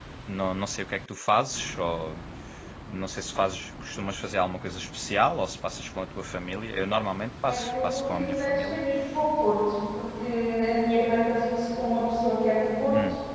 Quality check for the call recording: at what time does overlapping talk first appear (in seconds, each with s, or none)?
7.4 s